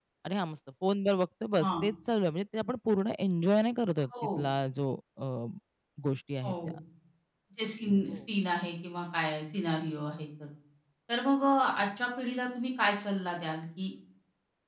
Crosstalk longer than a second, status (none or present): none